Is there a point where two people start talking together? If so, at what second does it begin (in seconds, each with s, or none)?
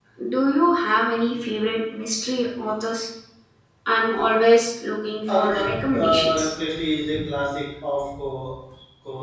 5.3 s